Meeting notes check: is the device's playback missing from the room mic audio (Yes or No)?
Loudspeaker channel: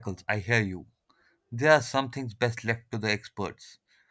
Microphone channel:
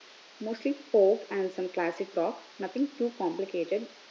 Yes